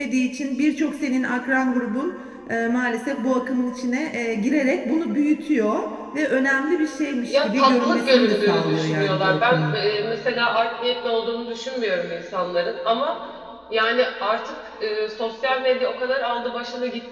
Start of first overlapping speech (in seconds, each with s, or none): 7.3 s